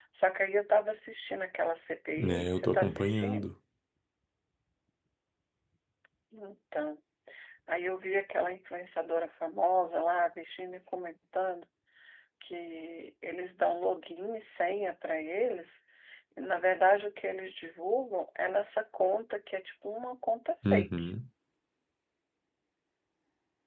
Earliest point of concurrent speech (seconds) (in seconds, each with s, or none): 2.2 s